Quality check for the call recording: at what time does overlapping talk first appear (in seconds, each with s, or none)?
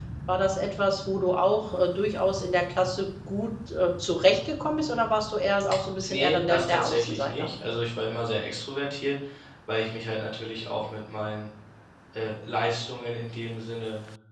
6.0 s